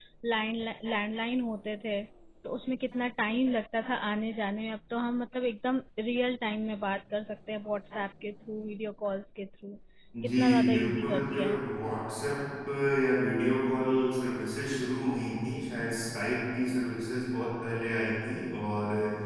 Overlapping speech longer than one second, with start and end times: 10.4-11.6

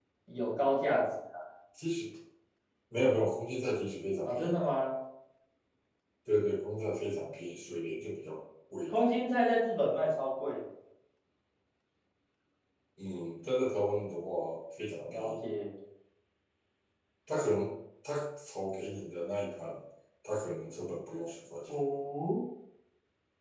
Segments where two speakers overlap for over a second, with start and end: none

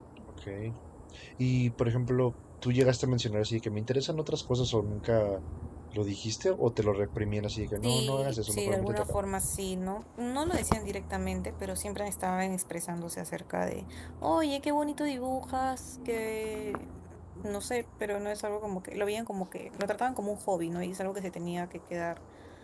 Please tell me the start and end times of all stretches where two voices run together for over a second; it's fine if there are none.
7.8-9.2

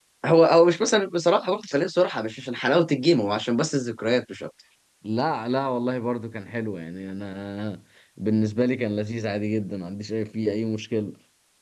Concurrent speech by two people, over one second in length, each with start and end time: none

